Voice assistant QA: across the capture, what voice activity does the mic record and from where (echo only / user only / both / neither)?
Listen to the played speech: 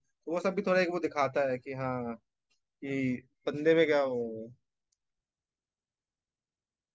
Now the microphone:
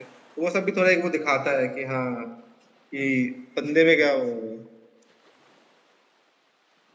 echo only